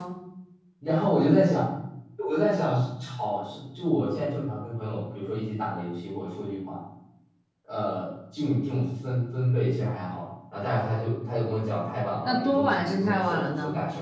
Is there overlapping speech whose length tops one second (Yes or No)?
Yes